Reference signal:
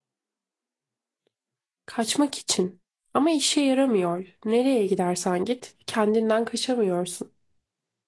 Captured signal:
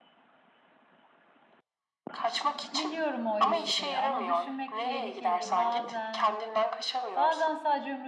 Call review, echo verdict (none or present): present